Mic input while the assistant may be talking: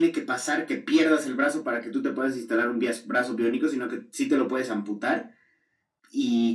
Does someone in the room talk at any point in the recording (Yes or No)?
No